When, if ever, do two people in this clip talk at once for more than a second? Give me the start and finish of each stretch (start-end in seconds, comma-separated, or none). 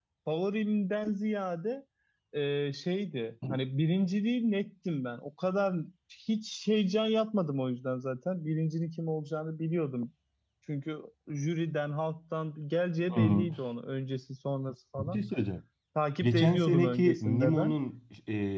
16.2-17.8